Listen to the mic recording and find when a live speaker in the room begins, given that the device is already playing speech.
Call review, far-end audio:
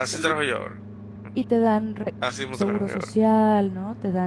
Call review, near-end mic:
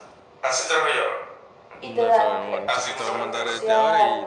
1.7 s

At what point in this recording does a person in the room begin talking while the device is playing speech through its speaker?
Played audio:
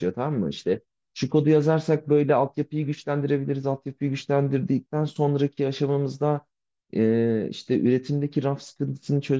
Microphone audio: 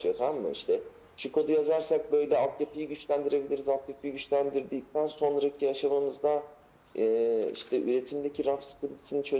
none

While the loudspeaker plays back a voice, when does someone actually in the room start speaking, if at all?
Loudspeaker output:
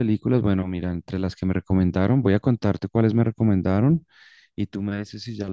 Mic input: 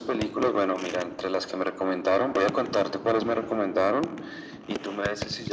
none

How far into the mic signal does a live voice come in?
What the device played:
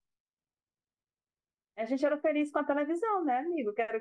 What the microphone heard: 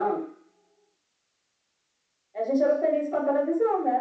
none

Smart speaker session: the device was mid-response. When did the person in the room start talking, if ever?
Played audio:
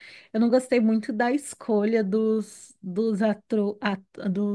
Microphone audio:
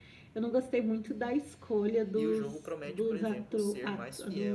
2.1 s

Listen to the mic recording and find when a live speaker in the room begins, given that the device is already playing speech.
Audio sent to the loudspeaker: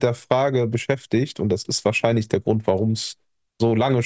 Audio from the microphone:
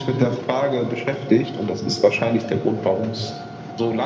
none

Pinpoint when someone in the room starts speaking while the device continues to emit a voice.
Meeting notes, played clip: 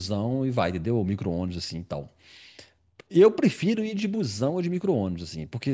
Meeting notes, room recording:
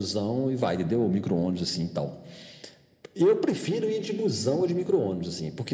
none

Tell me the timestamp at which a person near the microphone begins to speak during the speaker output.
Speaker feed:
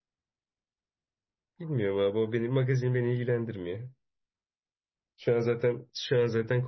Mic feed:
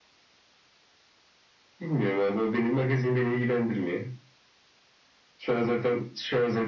none

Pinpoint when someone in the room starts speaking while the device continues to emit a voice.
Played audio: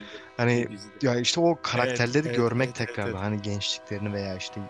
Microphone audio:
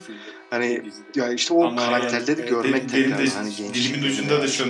1.6 s

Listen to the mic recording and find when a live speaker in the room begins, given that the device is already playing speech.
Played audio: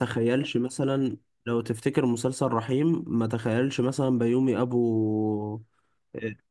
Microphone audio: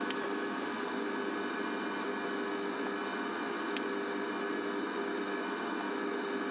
none

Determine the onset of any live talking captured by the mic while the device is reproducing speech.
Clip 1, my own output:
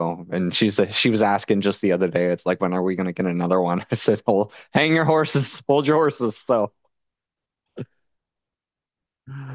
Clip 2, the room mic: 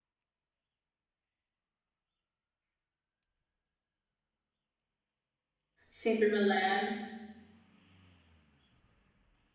5.9 s

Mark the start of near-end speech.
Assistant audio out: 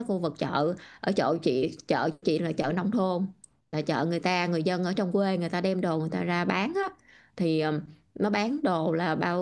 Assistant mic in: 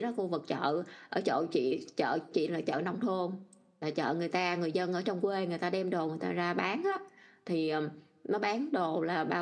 none

